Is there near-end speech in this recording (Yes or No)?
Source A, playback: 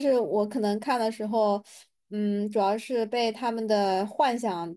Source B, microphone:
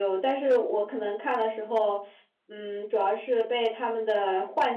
No